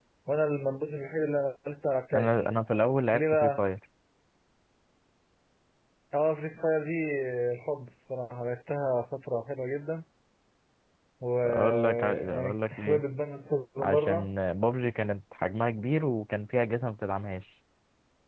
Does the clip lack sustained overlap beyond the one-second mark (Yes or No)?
No